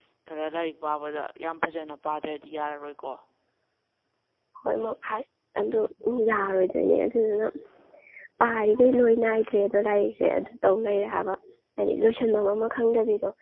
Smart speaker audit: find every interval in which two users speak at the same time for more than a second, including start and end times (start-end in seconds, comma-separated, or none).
none